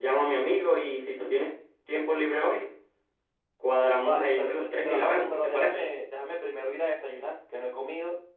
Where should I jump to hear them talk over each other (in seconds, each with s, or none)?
4.0 s